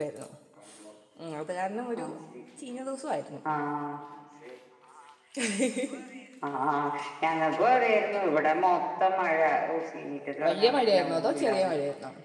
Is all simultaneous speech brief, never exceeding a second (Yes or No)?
No